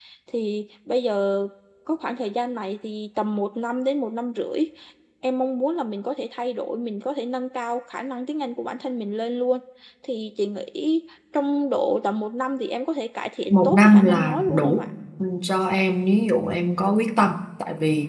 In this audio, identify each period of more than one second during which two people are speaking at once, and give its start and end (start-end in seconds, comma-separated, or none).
13.5-14.9